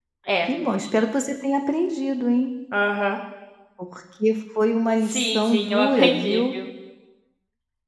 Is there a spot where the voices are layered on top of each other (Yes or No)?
Yes